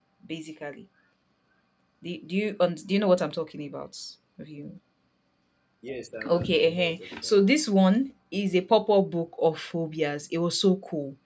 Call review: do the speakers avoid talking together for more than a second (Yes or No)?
No